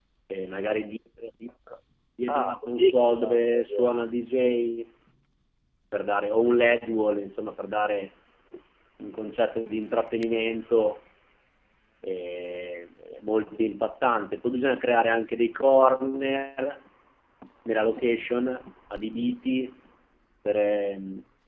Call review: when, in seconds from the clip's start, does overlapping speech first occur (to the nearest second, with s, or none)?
2 s